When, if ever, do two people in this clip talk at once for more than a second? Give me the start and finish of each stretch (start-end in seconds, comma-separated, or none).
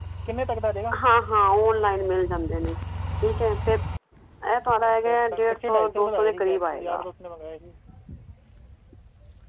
4.9-7.0